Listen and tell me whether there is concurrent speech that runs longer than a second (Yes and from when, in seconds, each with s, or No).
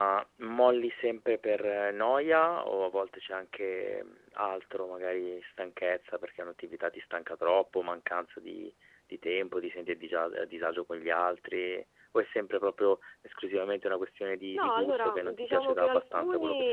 Yes, from 14.6 s